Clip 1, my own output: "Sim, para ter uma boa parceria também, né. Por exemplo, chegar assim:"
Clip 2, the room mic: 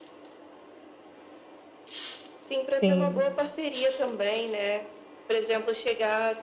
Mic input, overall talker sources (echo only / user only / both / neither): both